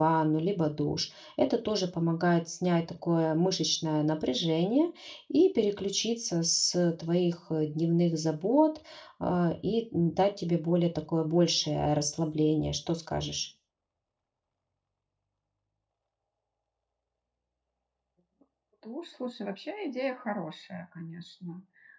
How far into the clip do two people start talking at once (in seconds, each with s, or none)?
none